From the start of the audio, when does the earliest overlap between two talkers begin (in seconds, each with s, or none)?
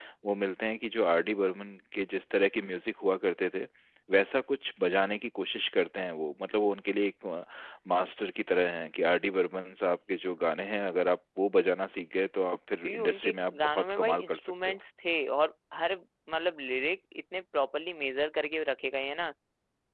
12.8 s